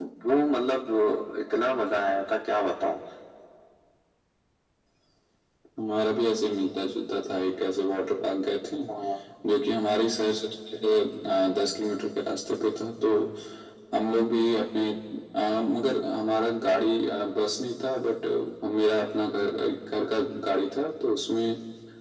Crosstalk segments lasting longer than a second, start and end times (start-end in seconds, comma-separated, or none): none